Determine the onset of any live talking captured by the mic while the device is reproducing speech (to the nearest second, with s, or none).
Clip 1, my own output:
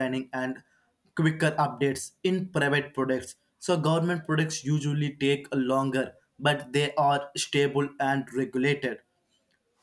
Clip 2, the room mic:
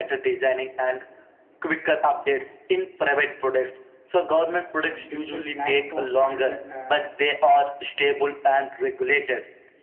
5 s